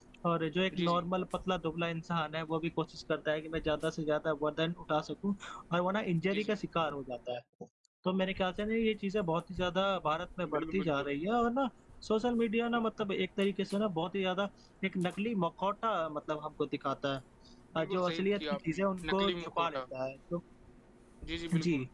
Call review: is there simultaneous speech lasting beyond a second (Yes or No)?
Yes